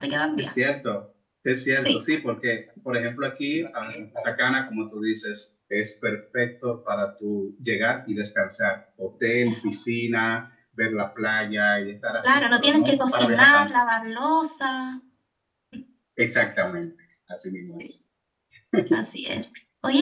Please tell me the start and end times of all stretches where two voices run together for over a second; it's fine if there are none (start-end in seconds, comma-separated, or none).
12.2-13.8